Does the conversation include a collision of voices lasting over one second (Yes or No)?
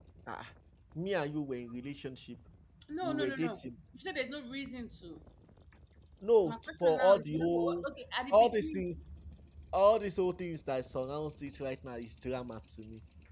Yes